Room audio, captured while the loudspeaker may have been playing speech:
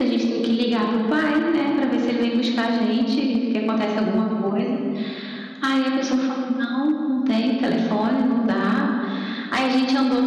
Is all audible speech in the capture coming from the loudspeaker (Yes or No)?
Yes